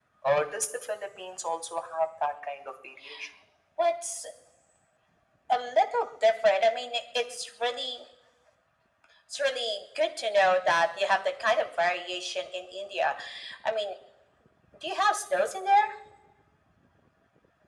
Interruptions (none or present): none